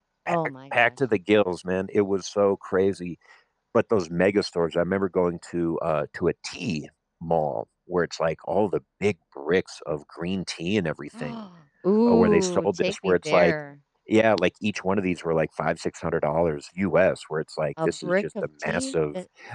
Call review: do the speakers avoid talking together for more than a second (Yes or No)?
No